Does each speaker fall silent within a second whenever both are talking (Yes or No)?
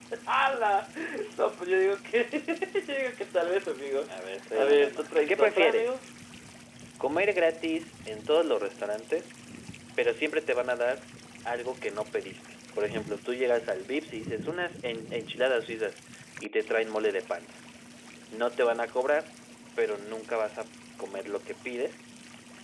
No